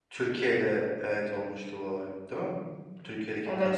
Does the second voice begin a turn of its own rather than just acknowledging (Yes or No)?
Yes